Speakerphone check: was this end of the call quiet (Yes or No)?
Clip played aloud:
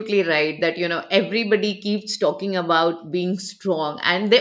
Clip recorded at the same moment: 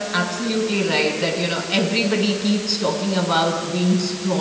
Yes